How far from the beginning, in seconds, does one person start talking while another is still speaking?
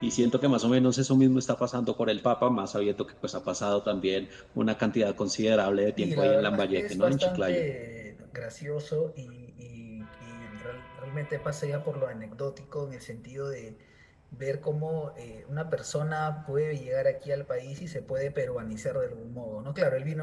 6.0 s

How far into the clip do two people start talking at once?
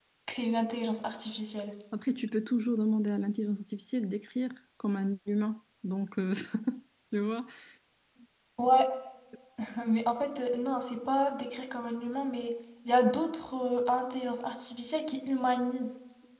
none

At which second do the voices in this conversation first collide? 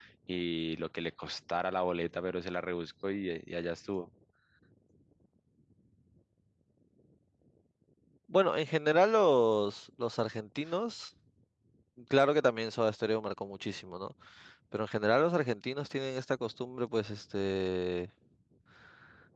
none

